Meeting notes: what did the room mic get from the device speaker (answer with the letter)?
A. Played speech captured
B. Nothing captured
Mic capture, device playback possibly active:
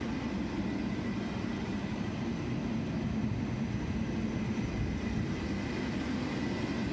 B